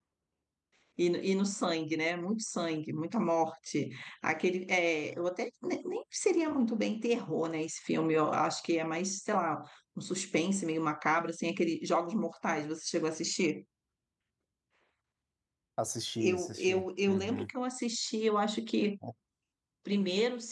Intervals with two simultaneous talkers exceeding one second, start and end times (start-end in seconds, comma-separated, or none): 16.2-17.5